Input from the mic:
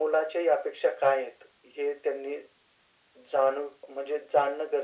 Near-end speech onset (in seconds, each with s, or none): none